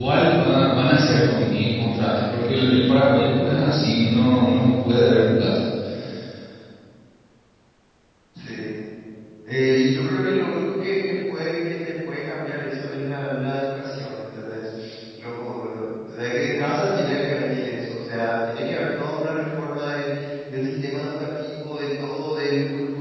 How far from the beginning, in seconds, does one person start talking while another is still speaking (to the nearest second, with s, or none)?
none